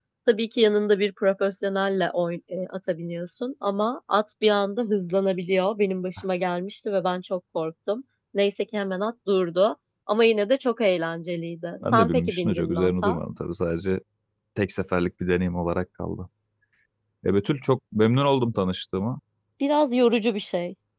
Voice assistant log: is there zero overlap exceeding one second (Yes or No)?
No